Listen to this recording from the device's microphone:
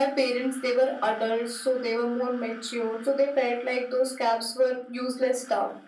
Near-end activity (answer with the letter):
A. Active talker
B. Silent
B